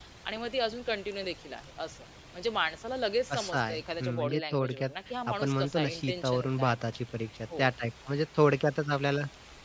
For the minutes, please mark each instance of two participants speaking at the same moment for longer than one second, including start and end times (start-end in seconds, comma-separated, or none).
3.3-4.9, 5.3-6.8